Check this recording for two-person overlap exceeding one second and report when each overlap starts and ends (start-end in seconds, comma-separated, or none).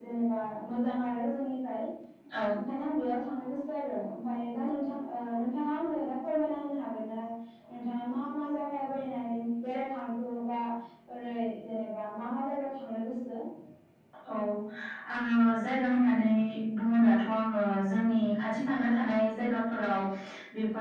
none